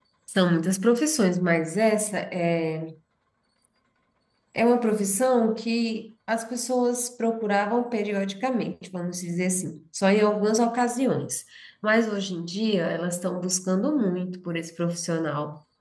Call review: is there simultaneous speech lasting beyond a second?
No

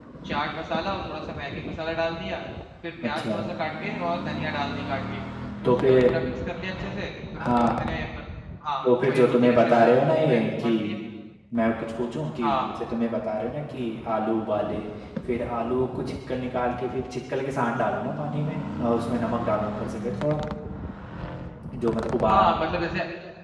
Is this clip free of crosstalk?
No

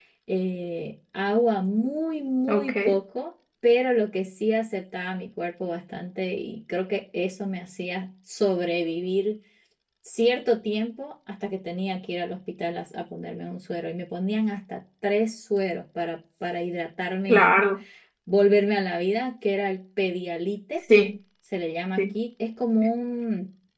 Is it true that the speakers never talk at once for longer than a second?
Yes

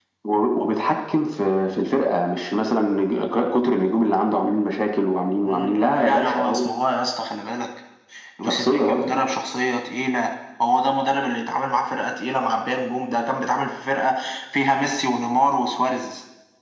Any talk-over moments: Yes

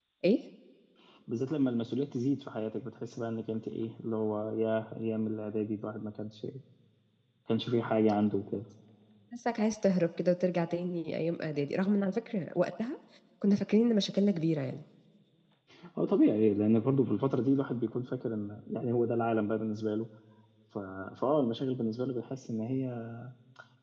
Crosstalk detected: No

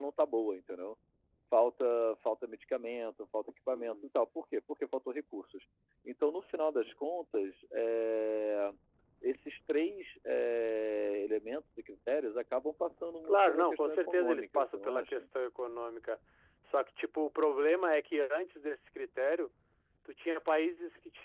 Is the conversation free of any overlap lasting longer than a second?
No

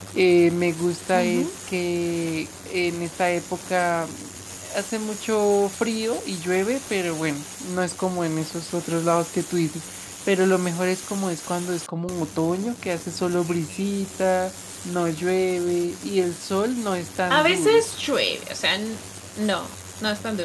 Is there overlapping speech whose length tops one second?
No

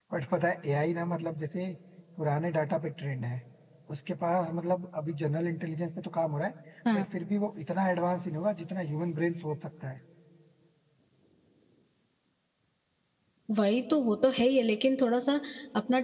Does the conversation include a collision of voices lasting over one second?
No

